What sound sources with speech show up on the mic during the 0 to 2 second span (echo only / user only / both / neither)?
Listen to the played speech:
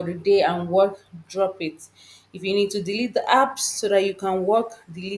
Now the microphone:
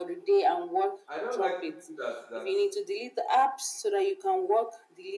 both